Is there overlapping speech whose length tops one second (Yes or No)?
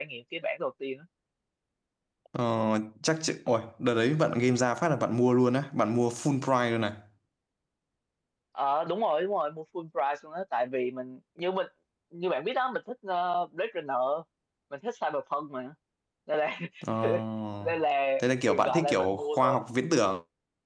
Yes